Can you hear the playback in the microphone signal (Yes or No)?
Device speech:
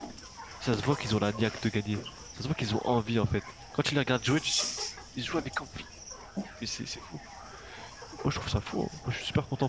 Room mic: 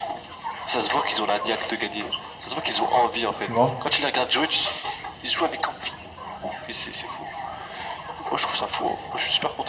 Yes